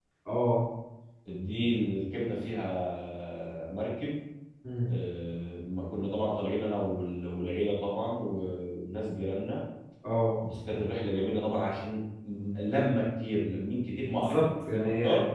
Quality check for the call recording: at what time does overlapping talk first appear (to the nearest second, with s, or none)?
14 s